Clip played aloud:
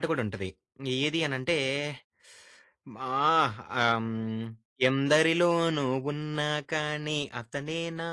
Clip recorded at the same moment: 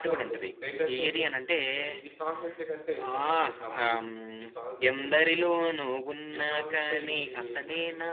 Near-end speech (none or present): present